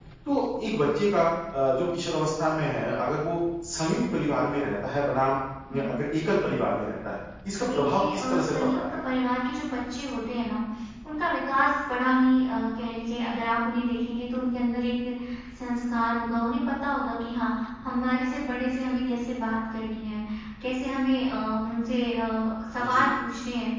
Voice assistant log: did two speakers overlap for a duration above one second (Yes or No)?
Yes